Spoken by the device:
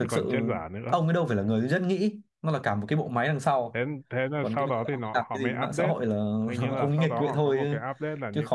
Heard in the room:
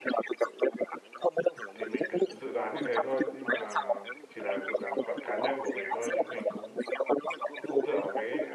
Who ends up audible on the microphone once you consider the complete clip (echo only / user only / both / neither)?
both